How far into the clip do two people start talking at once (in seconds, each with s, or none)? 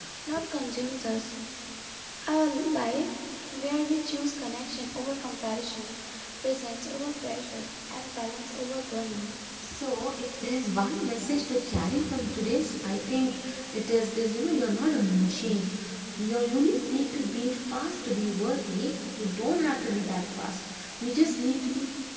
none